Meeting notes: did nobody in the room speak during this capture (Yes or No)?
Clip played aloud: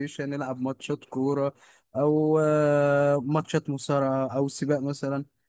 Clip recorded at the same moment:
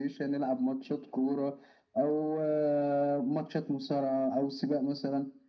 Yes